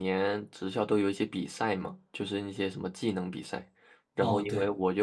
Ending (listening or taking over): listening